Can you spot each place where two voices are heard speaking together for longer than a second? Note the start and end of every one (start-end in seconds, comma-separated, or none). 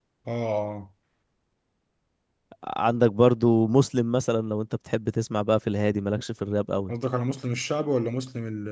none